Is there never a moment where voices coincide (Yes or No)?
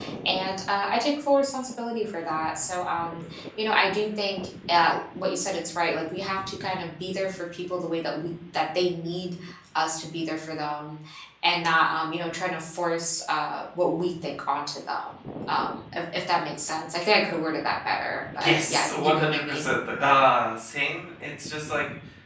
No